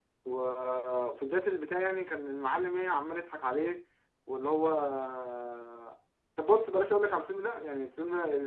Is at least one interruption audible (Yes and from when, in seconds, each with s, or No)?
No